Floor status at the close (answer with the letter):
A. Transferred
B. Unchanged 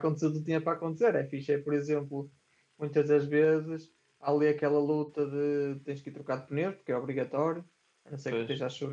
B